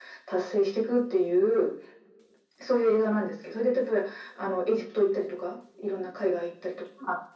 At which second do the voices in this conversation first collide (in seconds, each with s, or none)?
none